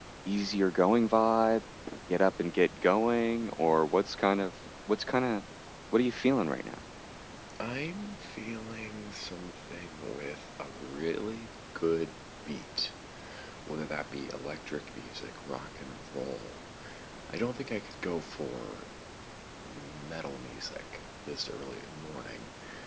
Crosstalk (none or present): none